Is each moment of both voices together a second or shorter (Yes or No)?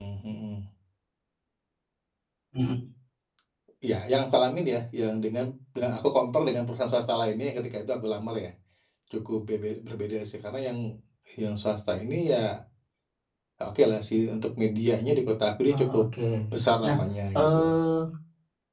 Yes